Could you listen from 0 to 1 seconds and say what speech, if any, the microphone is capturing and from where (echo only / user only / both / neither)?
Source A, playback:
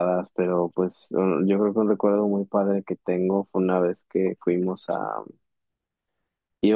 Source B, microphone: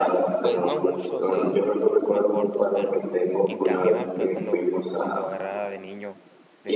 both